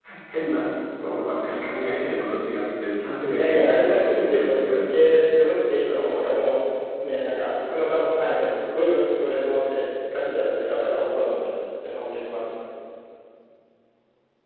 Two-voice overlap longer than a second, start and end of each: 3.3-5.1

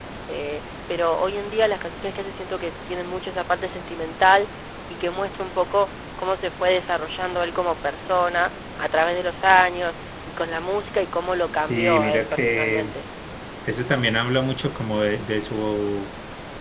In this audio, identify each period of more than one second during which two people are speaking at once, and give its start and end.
11.6-12.9

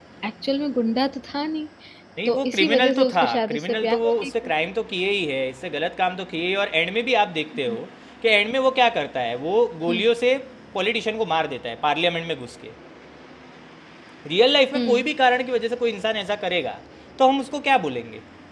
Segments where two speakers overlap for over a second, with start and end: 2.2-4.3

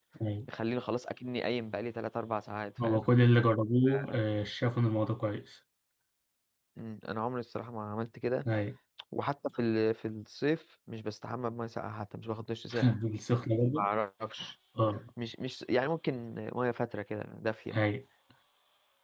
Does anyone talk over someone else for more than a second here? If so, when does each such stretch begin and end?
none

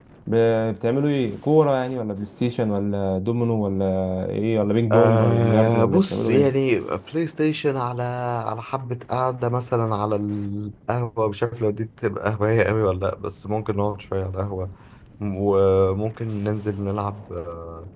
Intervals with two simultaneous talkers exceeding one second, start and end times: 4.9-6.5

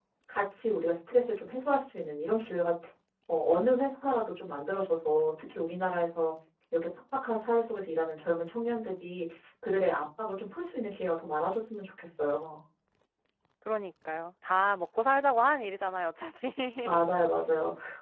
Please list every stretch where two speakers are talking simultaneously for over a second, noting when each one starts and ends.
none

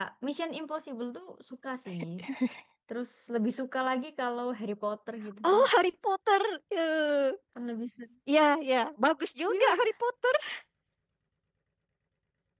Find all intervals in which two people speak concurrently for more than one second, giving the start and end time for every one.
none

